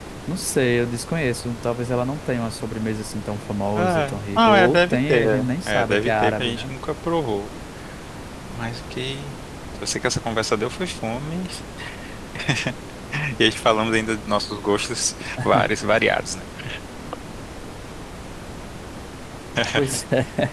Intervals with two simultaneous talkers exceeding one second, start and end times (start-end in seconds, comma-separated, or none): 3.8-6.7